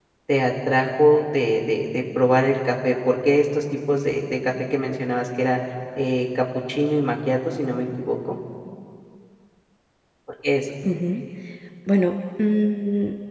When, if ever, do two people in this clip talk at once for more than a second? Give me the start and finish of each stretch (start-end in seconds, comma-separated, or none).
none